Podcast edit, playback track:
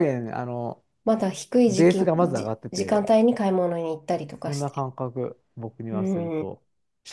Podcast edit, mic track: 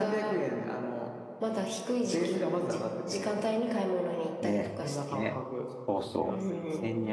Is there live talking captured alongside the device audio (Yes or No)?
Yes